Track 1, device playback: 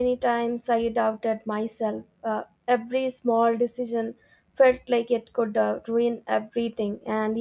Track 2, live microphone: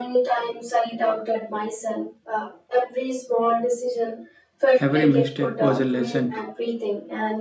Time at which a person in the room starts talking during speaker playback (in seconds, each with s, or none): 4.8 s